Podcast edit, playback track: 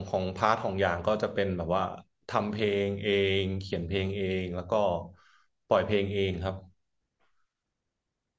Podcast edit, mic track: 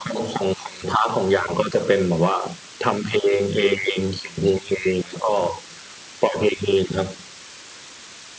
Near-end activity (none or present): none